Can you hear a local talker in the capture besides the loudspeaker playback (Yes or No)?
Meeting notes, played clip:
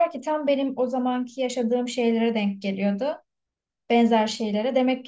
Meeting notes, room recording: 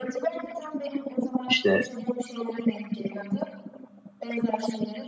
Yes